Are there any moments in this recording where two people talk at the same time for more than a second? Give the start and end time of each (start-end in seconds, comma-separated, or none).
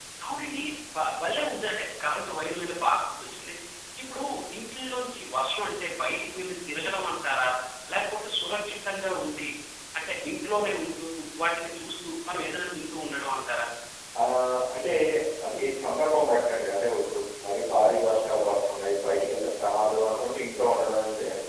none